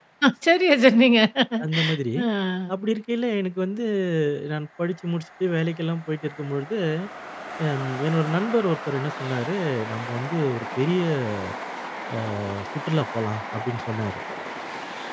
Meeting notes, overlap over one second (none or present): none